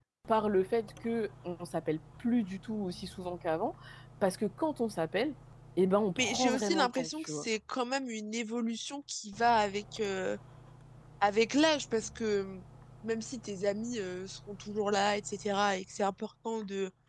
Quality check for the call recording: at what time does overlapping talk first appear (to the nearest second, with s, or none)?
6 s